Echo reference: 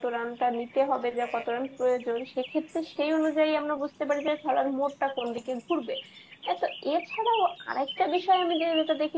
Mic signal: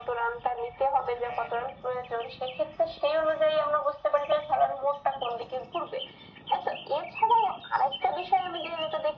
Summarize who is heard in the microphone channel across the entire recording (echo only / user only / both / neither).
echo only